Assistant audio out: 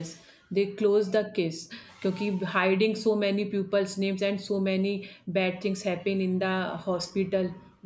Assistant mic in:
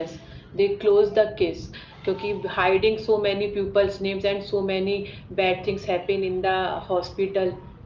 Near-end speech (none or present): none